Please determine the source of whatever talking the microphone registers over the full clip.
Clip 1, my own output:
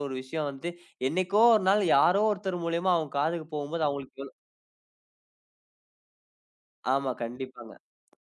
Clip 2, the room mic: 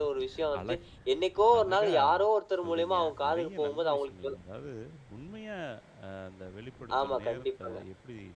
both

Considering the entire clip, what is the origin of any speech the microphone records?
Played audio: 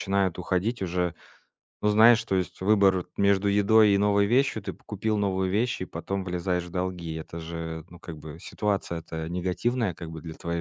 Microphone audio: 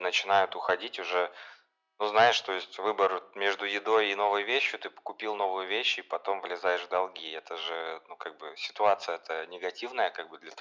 echo only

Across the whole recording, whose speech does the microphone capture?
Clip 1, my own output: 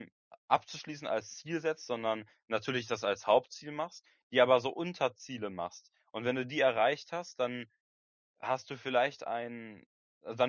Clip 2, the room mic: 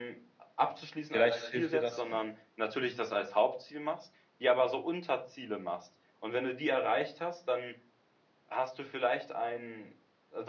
both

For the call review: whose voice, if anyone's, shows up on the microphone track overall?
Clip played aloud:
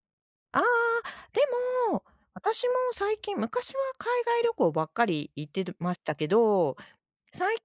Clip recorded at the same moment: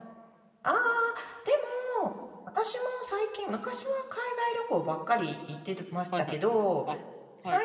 both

